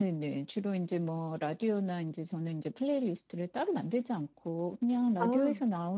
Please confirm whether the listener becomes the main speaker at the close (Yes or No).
No